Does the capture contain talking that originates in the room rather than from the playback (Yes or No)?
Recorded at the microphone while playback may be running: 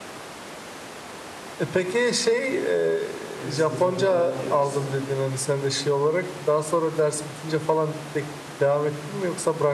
Yes